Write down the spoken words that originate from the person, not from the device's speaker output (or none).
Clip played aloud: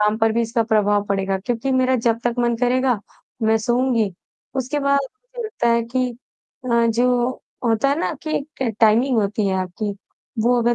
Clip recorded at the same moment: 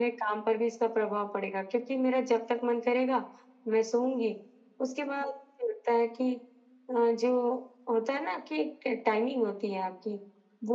none